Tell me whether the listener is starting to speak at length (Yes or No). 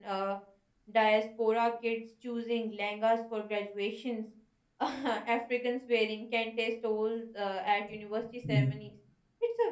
No